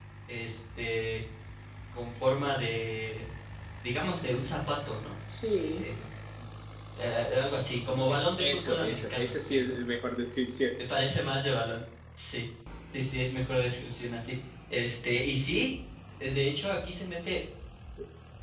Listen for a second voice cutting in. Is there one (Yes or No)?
Yes